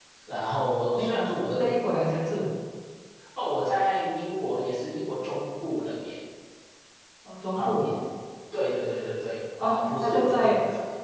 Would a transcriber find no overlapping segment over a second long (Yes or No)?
No